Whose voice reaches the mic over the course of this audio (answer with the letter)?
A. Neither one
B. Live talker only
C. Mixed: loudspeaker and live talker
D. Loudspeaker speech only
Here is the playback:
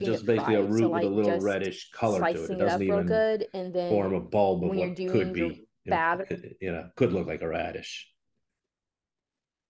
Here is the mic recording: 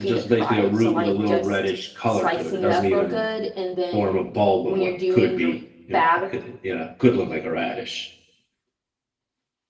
D